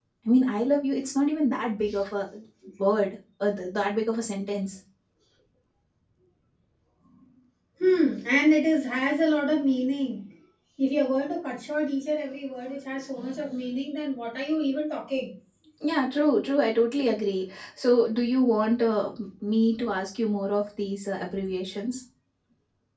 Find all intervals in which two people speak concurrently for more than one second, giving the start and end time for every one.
none

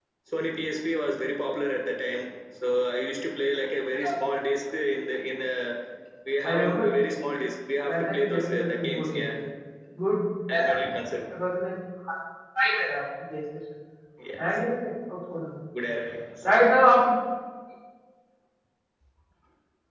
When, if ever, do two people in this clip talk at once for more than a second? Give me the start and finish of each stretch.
7.9-9.3

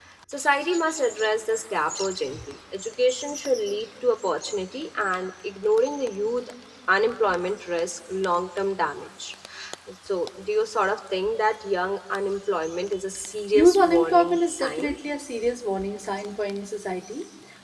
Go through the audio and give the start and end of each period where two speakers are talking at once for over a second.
13.5-15.0

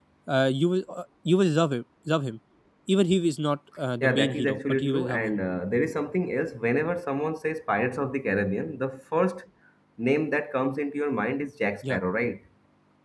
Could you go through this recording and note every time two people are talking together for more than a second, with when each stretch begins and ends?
4.0-5.4

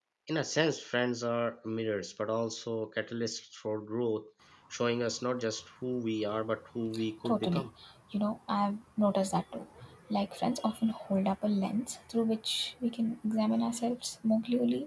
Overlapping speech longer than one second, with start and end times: none

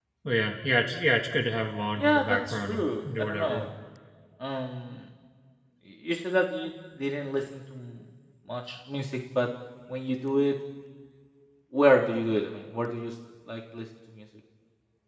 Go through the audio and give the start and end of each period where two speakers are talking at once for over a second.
2.0-3.6

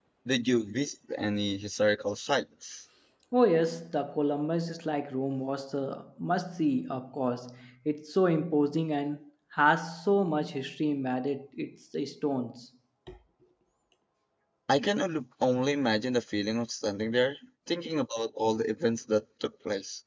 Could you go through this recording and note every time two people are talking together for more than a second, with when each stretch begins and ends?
none

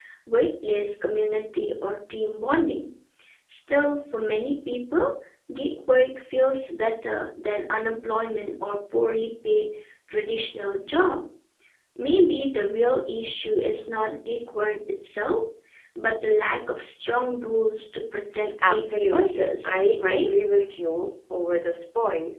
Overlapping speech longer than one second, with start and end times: 18.7-20.3

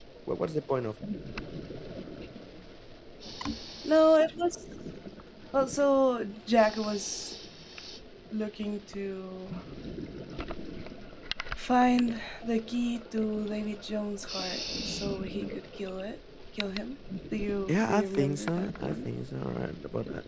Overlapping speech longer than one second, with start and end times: 17.7-19.1

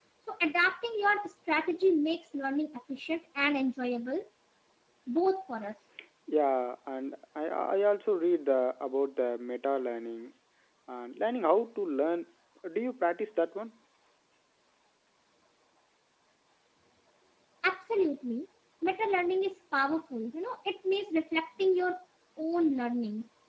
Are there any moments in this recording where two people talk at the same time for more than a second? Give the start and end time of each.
none

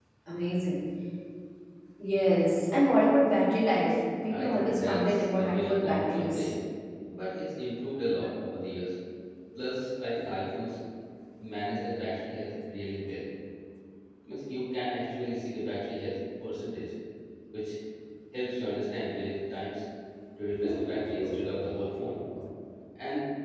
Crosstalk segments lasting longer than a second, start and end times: 4.4-6.5

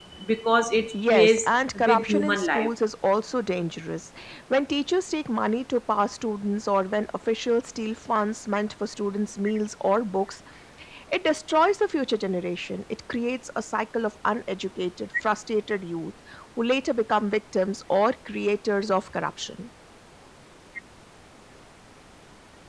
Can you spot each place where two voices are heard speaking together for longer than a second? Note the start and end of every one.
0.9-2.7

